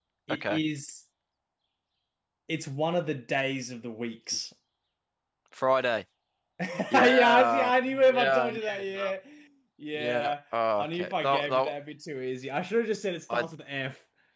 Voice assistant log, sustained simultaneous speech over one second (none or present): present